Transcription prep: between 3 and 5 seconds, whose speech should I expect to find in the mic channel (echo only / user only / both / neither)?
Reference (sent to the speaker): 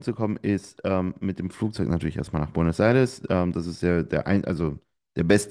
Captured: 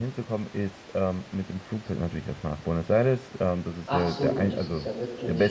both